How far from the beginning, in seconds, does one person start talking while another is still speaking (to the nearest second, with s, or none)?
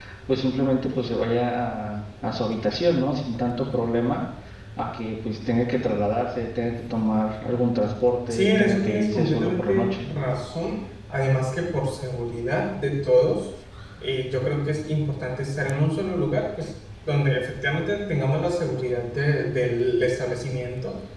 8 s